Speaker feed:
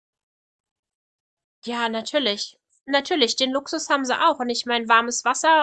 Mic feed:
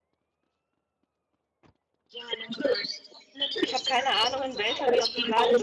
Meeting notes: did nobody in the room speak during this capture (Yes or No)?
No